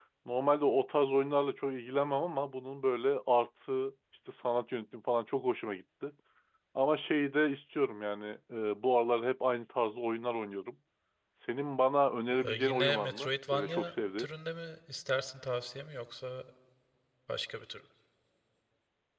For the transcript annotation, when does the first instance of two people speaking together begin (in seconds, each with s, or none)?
12.4 s